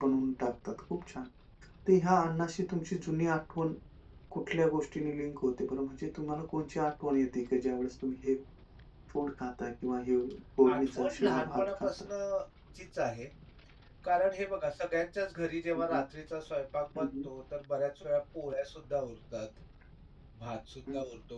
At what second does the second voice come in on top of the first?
10.7 s

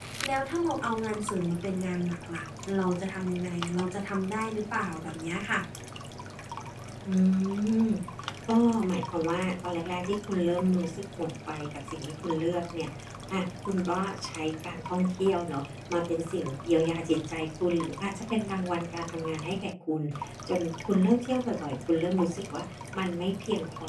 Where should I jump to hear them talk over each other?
none

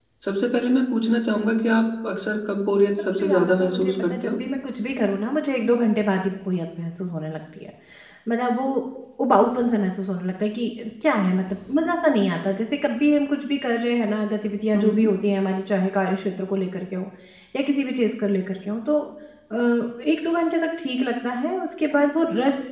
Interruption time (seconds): 3.2 s

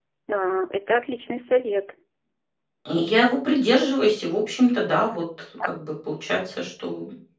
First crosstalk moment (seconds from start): none

